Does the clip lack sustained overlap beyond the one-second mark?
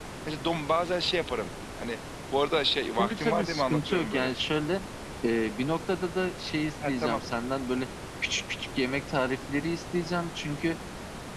No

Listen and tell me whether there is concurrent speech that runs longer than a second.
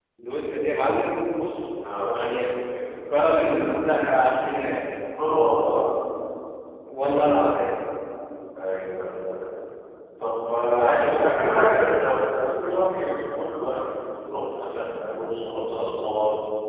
Yes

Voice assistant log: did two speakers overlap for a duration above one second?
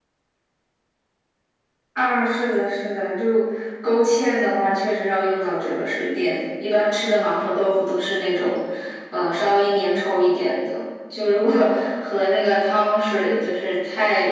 No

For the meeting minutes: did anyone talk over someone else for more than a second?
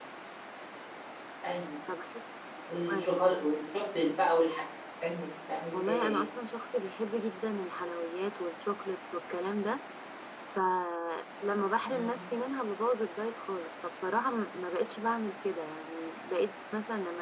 No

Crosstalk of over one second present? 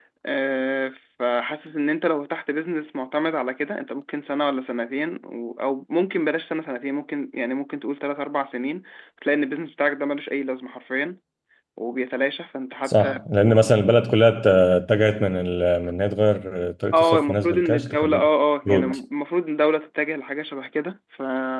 Yes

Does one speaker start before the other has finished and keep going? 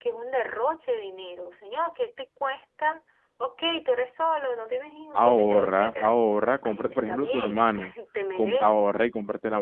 Yes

